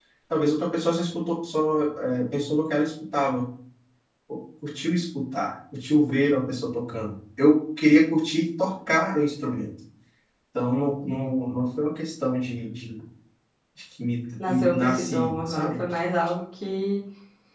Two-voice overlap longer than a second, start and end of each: 14.5-15.8

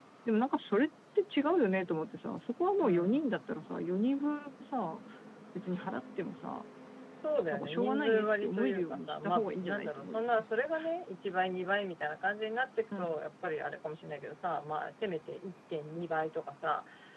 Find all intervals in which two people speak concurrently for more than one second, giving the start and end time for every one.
7.5-10.5

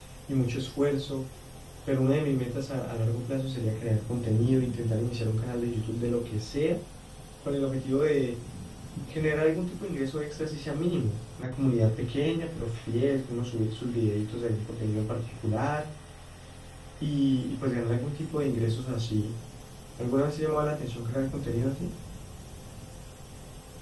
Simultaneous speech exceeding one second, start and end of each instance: none

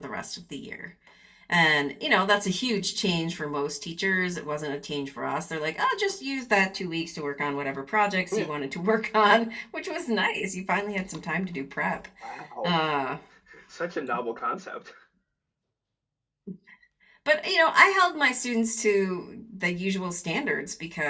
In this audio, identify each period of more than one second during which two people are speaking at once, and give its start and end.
none

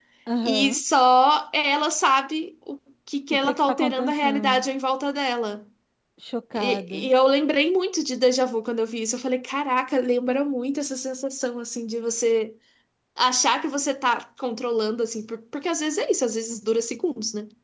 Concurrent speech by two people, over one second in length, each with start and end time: 3.3-4.7

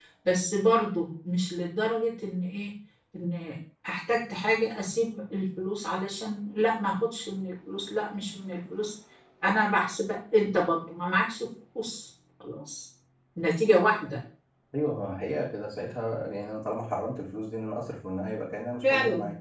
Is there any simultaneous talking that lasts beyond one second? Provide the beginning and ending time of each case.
none

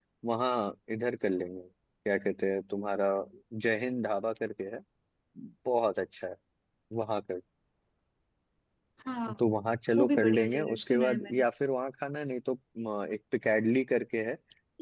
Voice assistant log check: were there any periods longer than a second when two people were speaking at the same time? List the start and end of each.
9.9-11.4

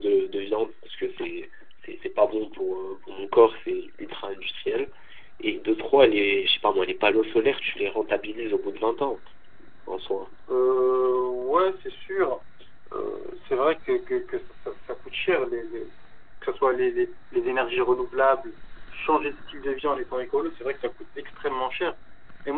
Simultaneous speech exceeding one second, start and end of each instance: none

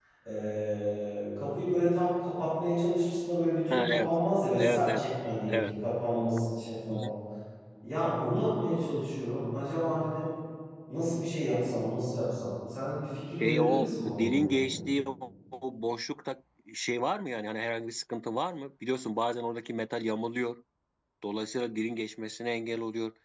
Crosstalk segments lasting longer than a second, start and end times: 13.4-14.7

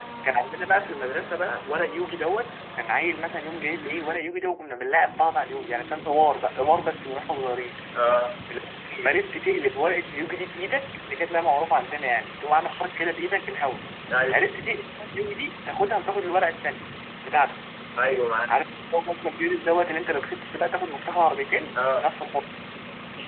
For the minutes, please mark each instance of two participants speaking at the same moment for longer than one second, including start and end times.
none

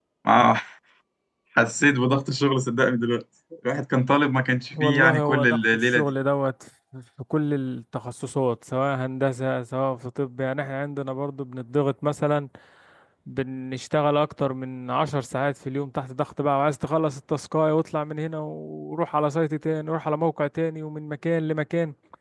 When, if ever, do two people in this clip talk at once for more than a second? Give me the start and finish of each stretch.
4.7-6.1

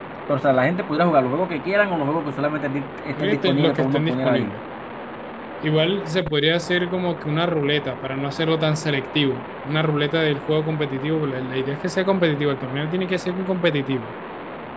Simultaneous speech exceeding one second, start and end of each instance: 3.2-4.5

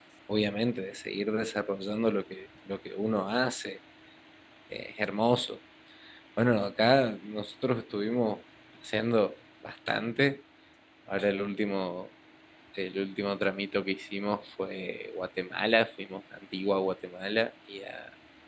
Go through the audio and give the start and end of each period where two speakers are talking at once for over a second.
none

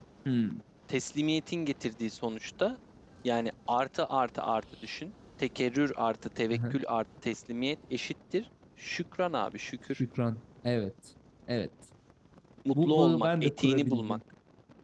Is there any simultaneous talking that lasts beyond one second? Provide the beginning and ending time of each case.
12.7-14.2

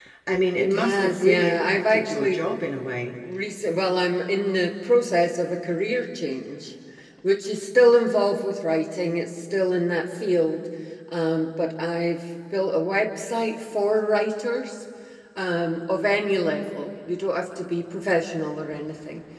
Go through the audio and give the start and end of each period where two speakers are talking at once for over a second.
0.6-2.4

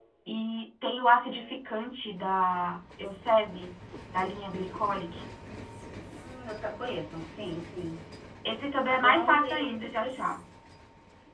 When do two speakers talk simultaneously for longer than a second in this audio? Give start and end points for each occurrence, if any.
8.9-10.2

